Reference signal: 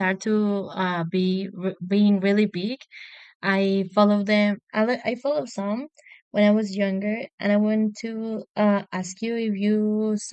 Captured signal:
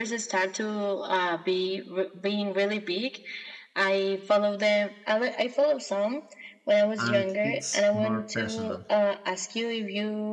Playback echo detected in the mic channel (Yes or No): Yes